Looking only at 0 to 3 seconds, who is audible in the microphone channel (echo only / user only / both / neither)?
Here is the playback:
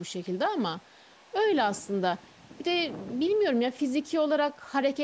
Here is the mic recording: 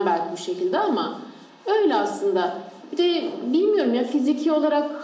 echo only